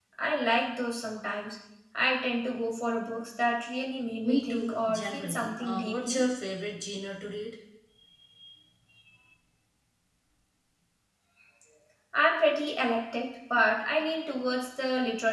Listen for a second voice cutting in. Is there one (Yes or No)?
Yes